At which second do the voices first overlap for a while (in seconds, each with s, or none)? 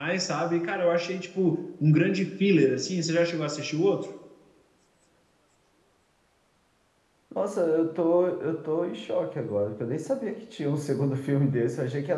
none